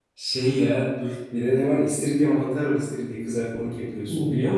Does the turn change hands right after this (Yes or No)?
Yes